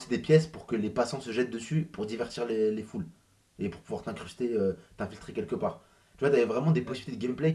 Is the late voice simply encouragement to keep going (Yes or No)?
Yes